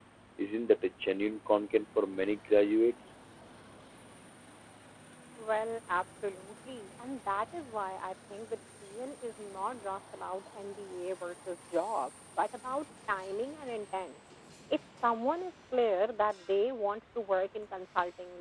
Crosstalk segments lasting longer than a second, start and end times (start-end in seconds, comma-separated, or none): none